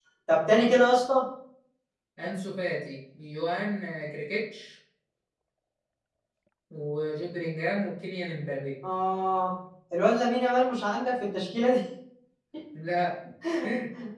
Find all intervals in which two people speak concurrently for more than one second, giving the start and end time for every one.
none

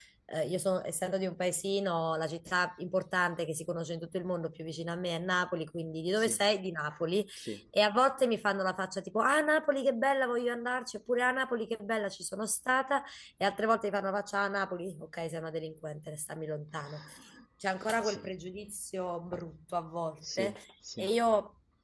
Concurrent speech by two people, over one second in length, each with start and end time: none

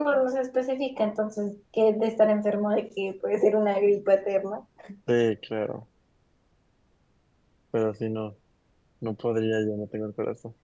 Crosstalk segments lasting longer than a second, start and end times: none

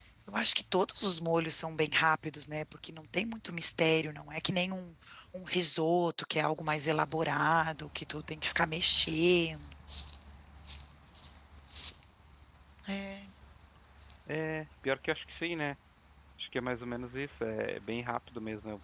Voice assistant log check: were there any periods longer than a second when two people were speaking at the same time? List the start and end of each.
none

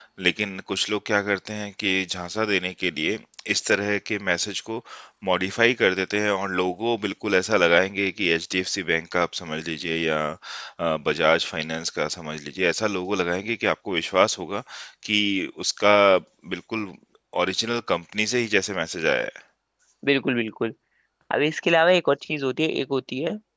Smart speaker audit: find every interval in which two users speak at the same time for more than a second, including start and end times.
none

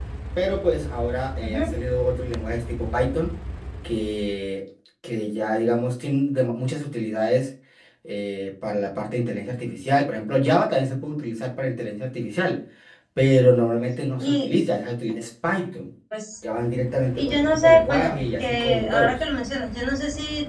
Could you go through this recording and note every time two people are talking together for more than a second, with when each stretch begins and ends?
17.1-19.2

